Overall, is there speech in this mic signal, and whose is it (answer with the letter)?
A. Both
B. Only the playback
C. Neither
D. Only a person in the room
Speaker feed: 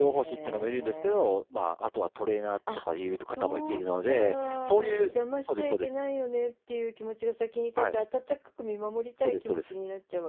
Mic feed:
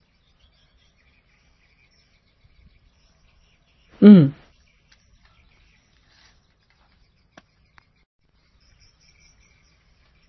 D